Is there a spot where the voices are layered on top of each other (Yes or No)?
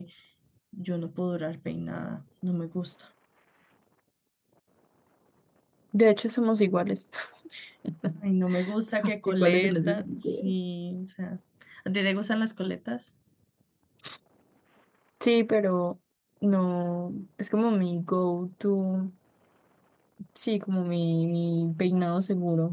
Yes